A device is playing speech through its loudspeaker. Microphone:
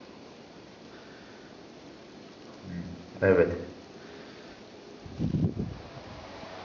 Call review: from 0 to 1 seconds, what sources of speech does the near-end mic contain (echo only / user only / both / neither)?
neither